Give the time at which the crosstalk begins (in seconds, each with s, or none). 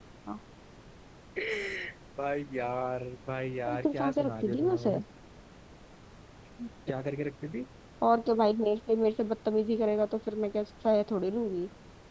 3.7 s